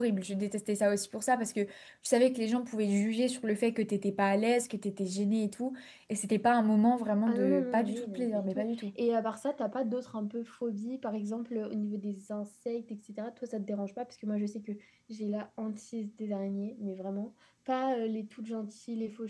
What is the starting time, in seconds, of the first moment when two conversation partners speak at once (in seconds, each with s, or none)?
7.3 s